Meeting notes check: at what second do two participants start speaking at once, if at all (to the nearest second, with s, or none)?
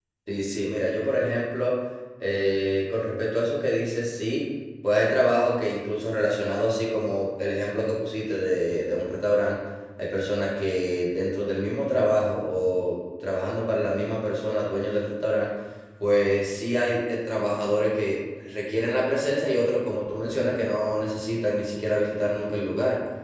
none